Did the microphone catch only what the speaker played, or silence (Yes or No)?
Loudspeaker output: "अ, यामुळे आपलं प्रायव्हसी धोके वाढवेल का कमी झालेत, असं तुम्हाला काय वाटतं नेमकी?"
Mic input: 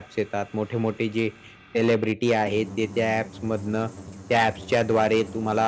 No